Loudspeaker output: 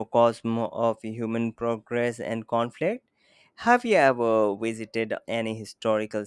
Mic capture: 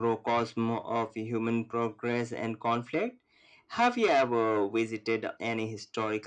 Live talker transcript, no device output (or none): none